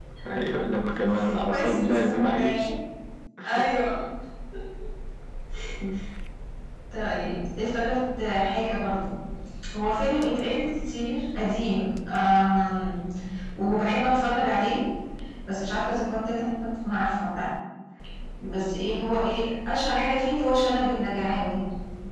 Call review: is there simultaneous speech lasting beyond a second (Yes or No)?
Yes